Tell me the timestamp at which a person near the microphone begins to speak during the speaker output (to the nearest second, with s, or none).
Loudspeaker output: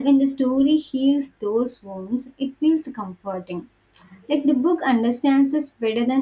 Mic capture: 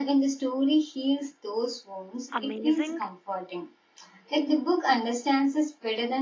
2 s